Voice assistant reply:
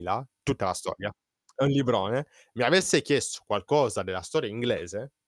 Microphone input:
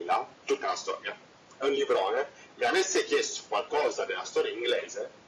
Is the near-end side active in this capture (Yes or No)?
No